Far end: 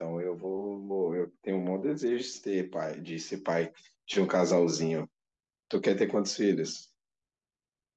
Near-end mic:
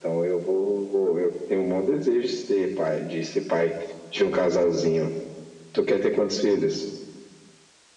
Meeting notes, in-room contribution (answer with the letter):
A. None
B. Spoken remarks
A